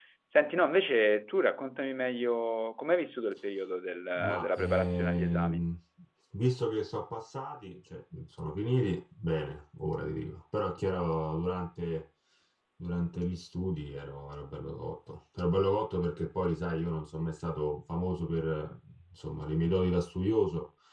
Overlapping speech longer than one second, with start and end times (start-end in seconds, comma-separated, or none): 4.4-5.7